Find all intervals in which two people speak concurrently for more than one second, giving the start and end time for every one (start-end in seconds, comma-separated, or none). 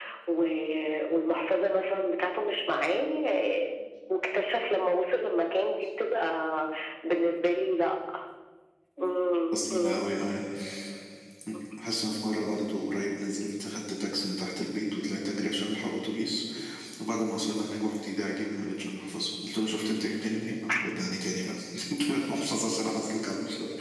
none